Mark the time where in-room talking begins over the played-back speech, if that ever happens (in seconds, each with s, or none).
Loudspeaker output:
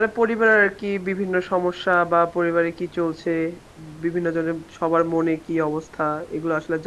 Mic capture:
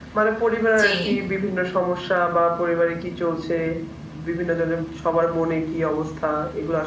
0.8 s